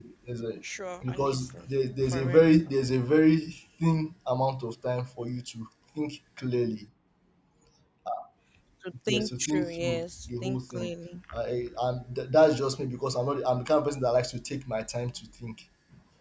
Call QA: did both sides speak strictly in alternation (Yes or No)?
No